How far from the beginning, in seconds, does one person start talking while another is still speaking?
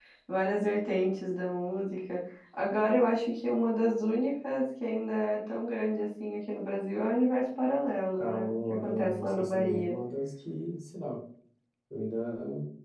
8.2 s

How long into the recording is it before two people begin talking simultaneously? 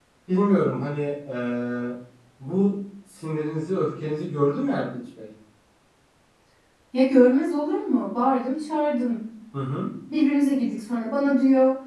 none

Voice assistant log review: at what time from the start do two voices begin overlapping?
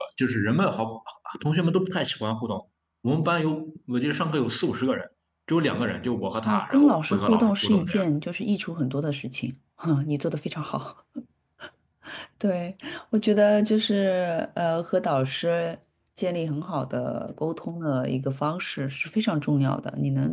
6.5 s

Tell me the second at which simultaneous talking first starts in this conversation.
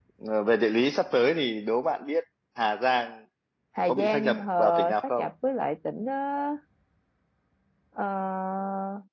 3.9 s

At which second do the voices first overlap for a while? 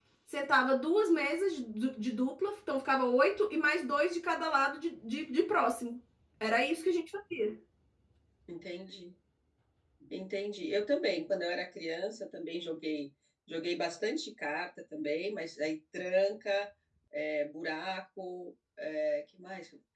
none

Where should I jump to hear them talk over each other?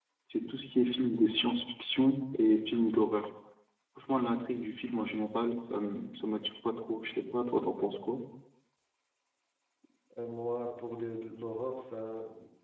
none

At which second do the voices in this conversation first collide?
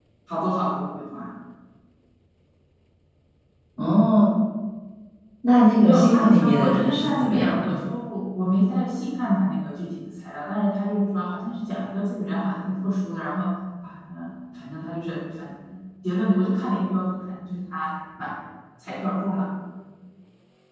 5.8 s

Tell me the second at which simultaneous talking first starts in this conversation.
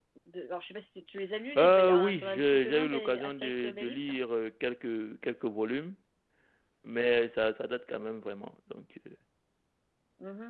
1.6 s

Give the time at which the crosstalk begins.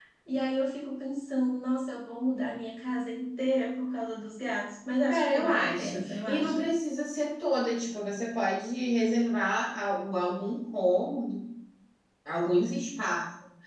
5.1 s

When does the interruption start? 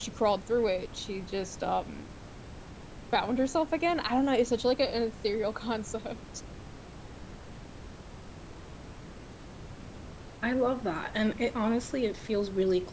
none

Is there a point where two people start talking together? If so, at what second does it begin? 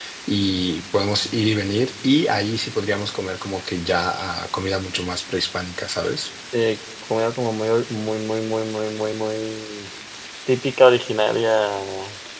none

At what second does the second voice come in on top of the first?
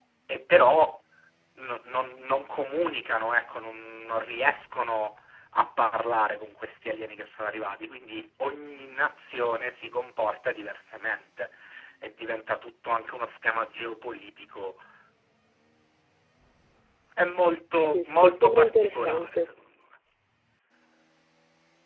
17.8 s

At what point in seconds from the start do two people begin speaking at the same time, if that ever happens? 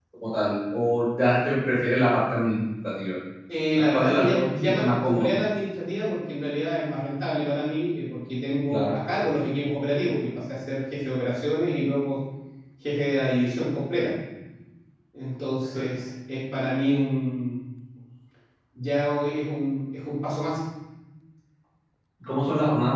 3.8 s

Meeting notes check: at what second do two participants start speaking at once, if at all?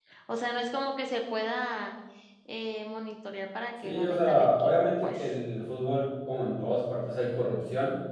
3.8 s

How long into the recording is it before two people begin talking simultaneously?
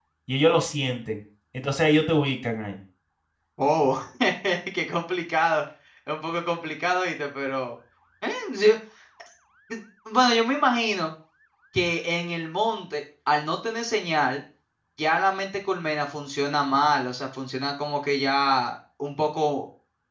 none

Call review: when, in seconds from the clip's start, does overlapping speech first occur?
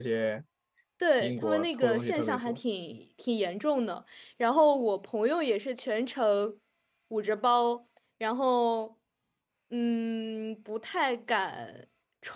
1.2 s

